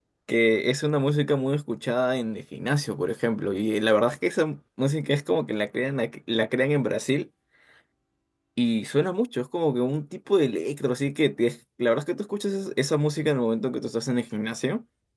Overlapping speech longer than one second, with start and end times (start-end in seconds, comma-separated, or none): none